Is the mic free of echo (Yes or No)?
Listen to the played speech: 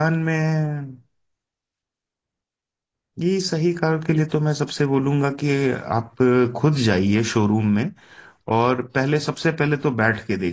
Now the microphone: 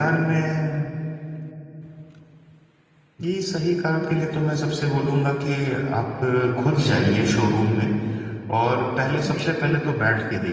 No